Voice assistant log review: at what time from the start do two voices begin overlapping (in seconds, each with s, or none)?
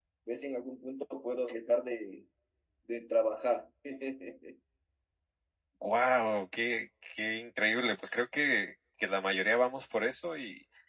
none